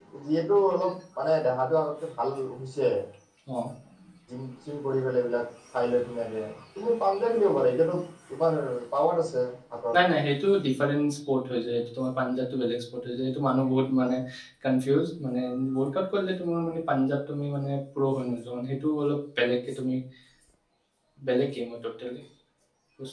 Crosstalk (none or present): none